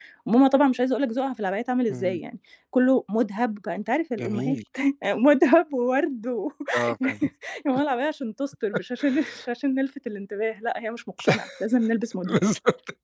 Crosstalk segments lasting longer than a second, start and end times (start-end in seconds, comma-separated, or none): none